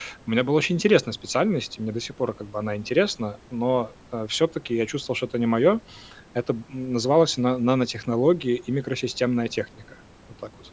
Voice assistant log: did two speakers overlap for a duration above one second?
No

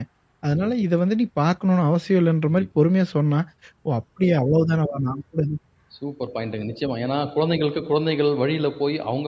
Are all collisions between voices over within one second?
Yes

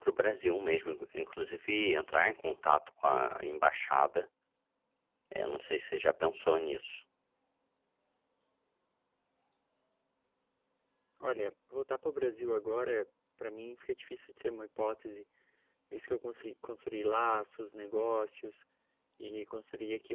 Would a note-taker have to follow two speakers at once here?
No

